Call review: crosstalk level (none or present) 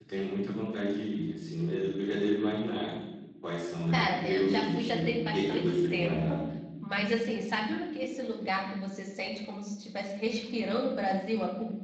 present